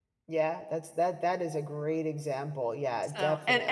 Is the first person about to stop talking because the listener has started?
Yes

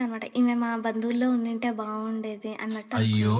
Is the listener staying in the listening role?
No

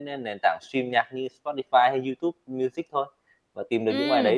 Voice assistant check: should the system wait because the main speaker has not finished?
No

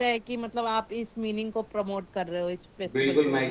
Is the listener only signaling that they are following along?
No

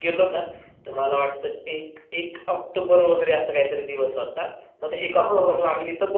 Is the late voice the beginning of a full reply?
No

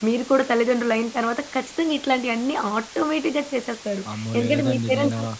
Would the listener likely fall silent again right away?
No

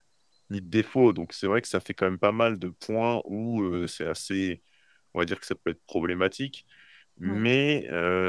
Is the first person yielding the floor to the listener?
No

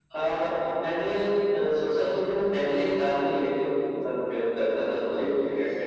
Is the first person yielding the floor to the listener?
No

